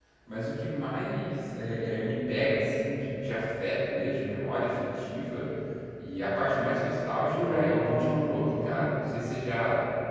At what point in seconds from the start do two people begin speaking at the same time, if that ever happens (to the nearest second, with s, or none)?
7 s